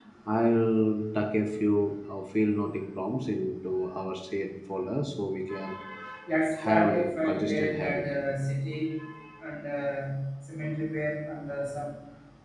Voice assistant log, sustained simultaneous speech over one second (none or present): present